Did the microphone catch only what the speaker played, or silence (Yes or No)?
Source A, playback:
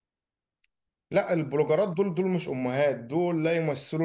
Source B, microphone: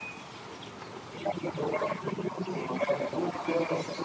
Yes